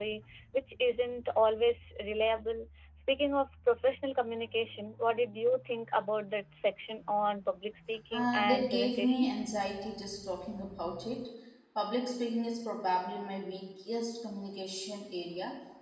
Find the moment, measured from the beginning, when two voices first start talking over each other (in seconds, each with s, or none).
8.1 s